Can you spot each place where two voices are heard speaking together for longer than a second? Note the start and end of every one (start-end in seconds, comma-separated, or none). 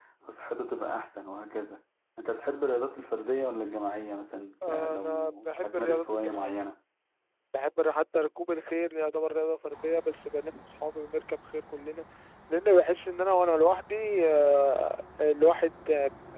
4.6-6.6